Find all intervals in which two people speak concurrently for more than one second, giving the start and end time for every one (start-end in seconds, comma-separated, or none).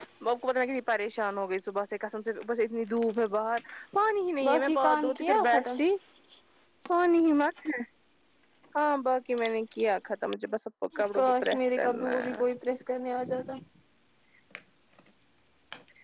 4.4-5.6, 11.2-12.4